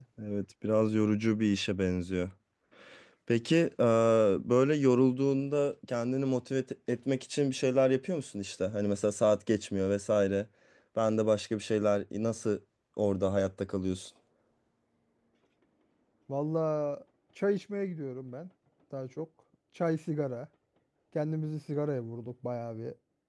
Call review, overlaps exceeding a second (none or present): none